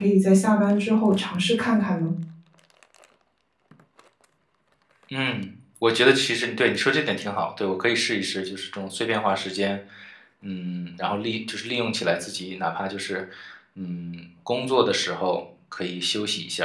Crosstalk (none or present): none